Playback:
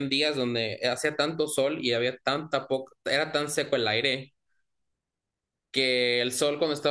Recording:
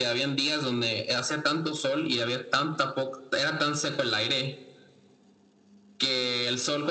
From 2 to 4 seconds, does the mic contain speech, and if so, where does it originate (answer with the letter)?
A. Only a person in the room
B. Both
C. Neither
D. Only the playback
D